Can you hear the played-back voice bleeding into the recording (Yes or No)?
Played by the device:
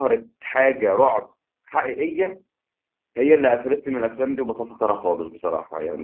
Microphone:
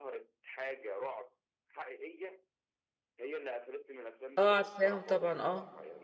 Yes